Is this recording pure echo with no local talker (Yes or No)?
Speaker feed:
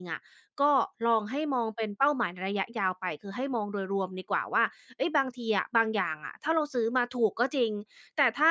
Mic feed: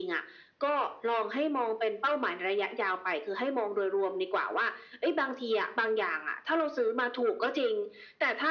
Yes